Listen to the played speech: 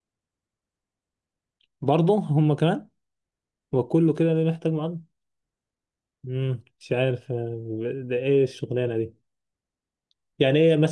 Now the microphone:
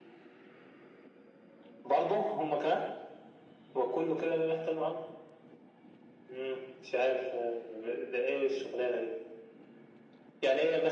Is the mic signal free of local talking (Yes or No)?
Yes